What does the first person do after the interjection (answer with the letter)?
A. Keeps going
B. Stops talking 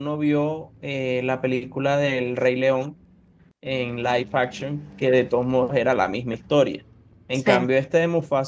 A